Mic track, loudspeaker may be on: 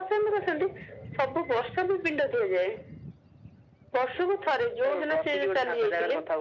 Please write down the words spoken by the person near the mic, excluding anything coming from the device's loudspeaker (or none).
none